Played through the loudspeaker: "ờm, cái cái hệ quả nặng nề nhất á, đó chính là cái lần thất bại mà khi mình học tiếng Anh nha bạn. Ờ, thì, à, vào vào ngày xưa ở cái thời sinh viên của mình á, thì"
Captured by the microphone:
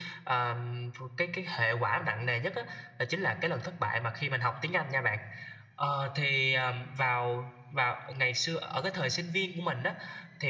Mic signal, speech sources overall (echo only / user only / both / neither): echo only